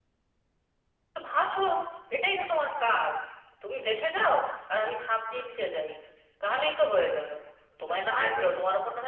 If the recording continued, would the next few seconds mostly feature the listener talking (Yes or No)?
No